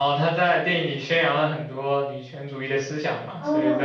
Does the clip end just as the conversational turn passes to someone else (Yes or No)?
Yes